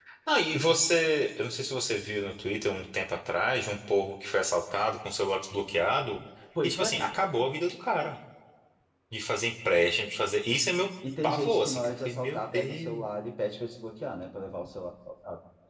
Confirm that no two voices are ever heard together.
No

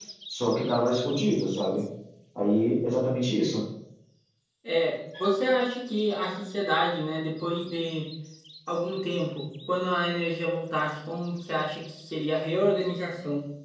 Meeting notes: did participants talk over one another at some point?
No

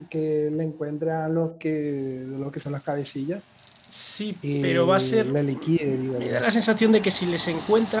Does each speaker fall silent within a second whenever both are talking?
No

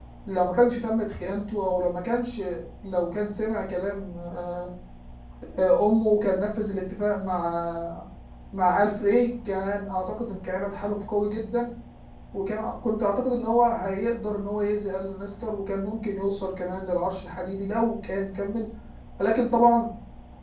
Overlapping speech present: No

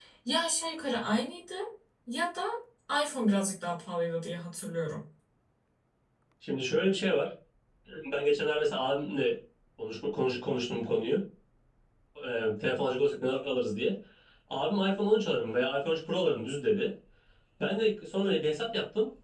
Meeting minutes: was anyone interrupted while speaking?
No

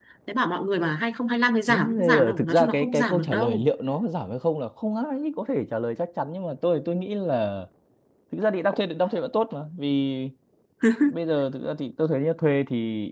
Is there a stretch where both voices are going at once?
Yes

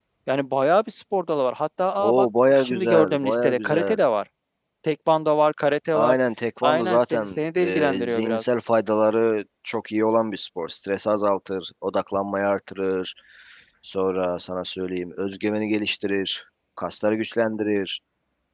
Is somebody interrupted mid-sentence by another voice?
Yes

